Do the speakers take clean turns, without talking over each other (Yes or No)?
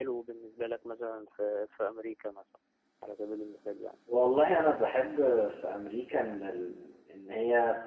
Yes